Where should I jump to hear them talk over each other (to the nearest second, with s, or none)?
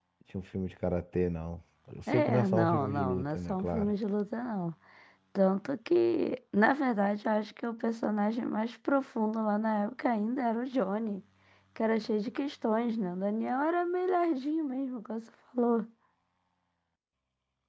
2 s